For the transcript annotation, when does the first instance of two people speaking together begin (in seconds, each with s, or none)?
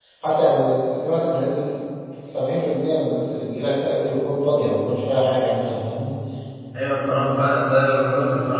none